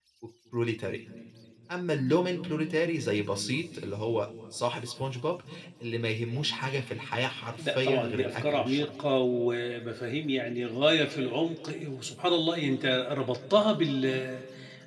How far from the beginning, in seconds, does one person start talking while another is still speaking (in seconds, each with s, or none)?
7.6 s